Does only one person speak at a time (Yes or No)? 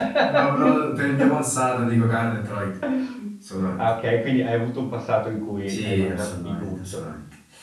No